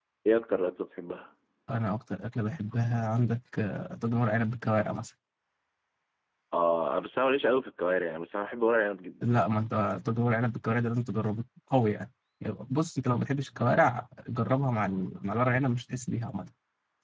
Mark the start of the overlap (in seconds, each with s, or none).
none